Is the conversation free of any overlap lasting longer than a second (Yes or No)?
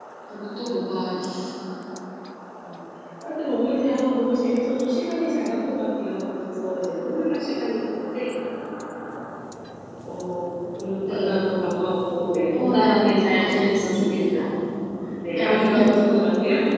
No